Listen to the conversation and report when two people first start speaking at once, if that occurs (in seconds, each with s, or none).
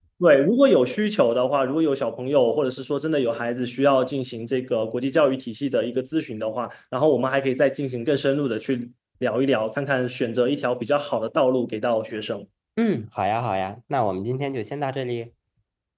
none